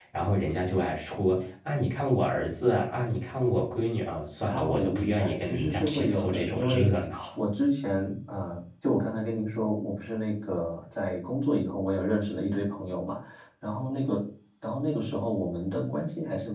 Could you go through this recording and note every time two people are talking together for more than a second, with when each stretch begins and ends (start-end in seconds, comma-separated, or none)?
4.5-6.9